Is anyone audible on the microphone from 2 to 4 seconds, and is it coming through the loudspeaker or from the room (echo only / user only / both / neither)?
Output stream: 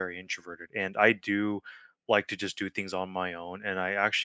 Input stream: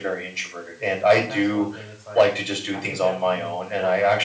both